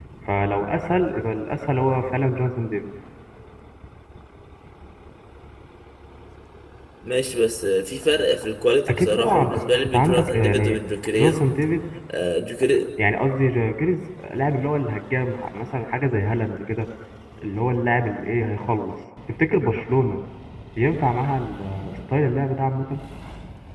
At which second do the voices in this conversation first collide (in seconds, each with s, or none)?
8.9 s